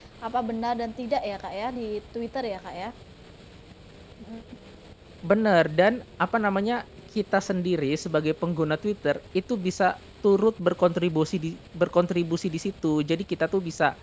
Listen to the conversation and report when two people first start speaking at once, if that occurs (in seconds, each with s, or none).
none